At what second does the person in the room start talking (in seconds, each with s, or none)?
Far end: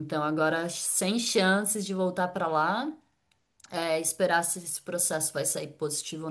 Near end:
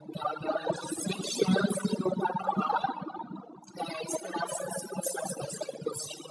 none